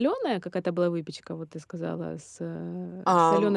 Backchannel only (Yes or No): No